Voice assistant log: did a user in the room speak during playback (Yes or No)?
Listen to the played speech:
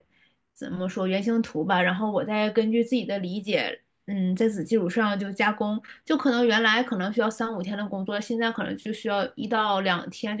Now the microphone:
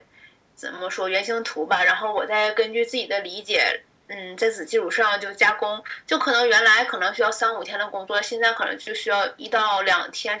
No